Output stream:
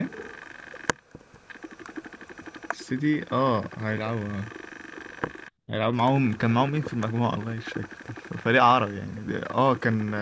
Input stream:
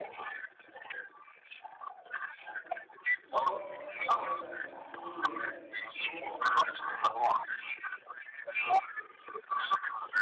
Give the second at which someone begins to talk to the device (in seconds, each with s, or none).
3.2 s